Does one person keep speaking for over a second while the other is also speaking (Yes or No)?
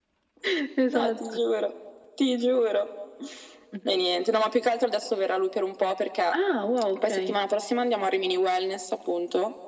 No